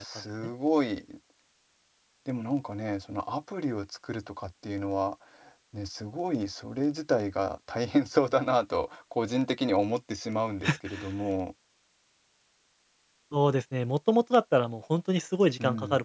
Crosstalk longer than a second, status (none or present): none